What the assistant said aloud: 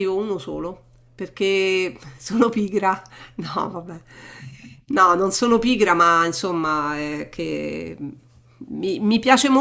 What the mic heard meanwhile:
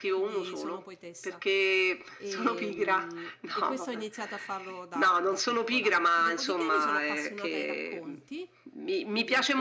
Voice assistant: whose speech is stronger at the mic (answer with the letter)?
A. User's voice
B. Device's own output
B